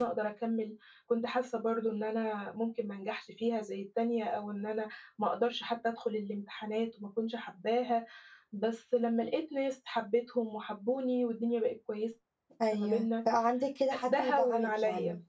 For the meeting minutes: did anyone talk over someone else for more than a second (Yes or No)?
Yes